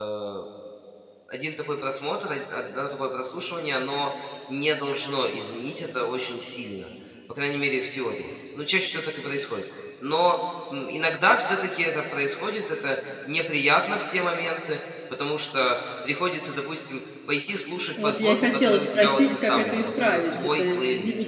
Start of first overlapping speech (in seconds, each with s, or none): 18.0 s